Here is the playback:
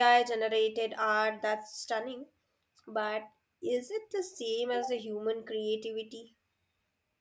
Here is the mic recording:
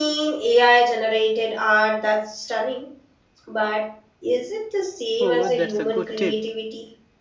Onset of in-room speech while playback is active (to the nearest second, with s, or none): 5 s